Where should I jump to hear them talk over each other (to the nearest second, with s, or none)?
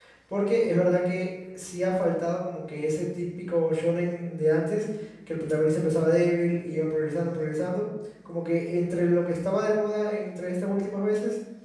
none